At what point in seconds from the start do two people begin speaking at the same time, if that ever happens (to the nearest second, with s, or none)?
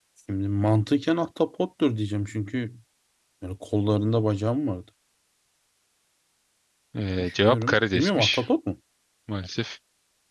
7 s